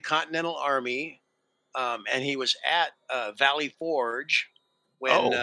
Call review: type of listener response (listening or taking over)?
listening